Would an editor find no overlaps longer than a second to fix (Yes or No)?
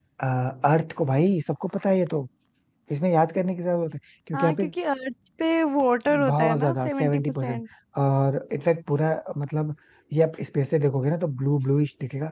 No